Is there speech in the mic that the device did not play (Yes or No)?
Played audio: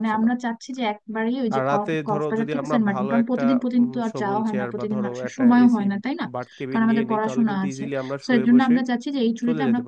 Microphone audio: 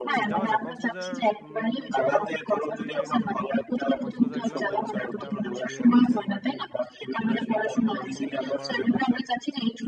Yes